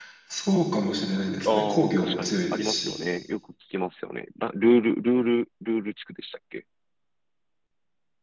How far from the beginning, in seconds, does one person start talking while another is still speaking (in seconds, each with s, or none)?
1.4 s